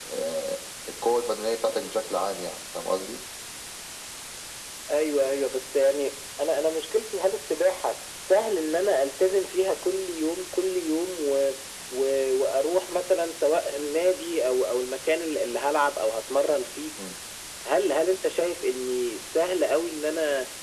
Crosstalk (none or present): none